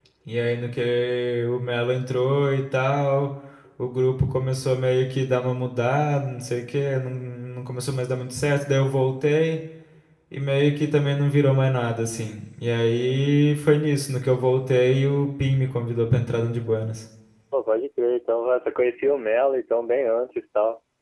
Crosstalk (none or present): none